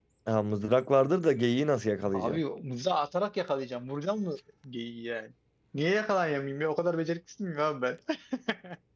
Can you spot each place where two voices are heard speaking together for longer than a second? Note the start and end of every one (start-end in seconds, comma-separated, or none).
none